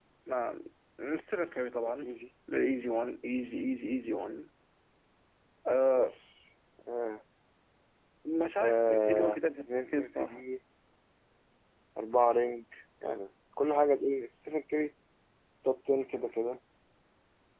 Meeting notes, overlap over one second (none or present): present